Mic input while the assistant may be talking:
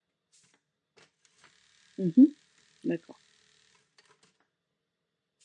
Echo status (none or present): none